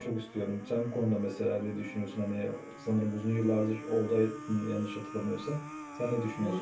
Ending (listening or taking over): taking over